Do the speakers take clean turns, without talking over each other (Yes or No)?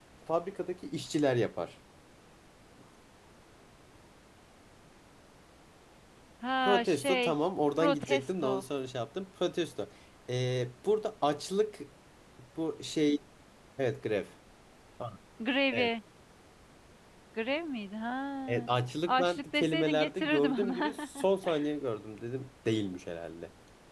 No